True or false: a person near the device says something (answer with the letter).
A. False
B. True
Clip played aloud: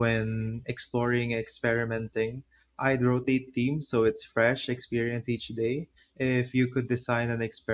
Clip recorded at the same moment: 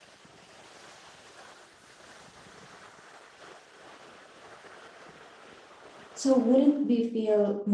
B